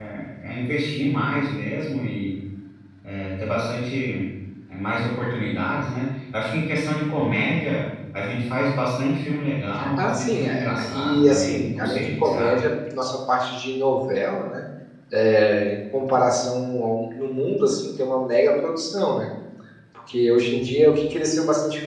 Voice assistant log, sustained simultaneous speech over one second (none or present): present